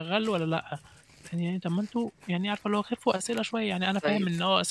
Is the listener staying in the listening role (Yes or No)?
Yes